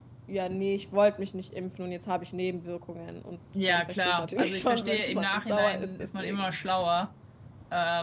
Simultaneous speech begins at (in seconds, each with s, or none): 3.5 s